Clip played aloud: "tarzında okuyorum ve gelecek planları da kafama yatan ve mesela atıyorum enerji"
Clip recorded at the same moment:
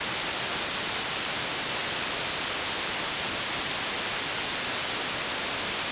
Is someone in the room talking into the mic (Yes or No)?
No